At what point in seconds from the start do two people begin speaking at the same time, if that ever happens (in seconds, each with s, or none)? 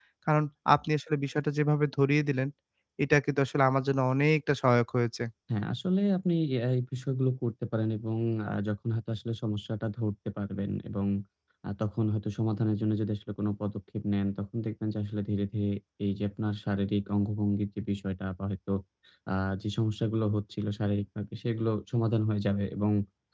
none